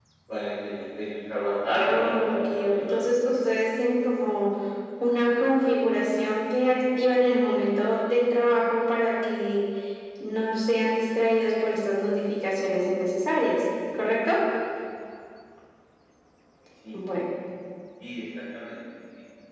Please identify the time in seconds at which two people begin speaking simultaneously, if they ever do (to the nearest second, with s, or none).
2 s